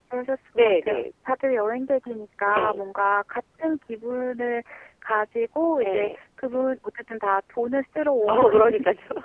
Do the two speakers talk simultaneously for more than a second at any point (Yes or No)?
No